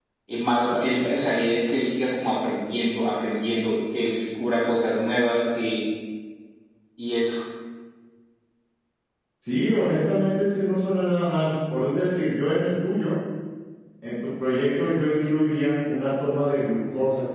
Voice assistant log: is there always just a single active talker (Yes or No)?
Yes